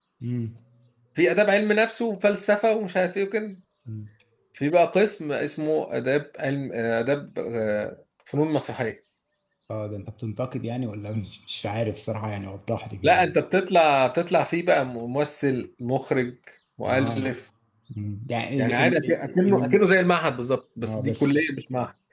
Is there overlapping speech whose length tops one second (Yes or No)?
Yes